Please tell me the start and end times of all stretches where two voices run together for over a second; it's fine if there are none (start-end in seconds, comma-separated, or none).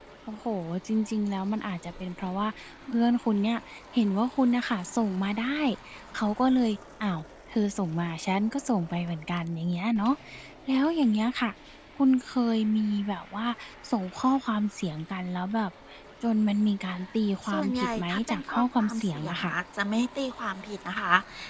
17.5-19.6